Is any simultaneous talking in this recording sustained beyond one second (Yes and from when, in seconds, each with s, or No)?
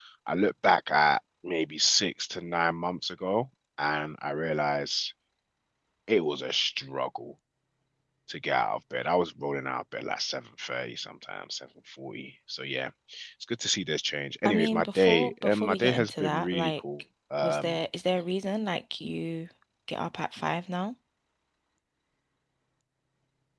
Yes, from 14.4 s